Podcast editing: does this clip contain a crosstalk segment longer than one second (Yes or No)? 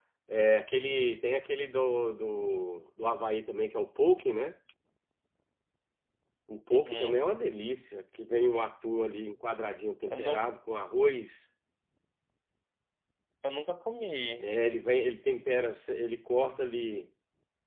No